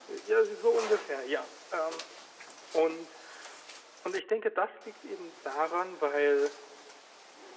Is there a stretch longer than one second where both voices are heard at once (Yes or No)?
No